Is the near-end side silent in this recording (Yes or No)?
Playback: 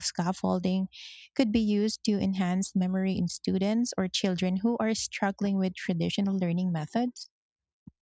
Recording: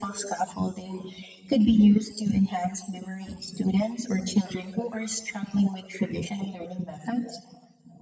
Yes